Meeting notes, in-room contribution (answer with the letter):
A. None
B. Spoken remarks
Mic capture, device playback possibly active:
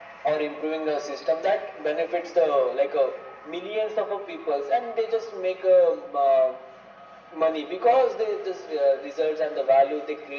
A